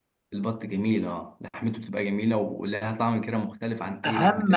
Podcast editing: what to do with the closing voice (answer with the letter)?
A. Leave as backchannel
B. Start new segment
B